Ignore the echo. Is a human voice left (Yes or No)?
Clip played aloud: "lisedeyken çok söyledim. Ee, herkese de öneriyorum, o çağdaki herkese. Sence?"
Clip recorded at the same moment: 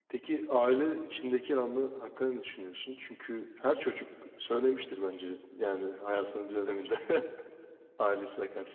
Yes